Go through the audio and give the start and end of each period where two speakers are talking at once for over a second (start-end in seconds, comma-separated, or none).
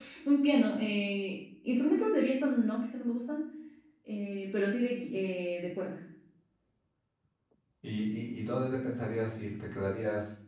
none